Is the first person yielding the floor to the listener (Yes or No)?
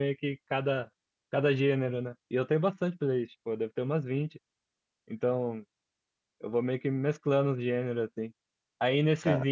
No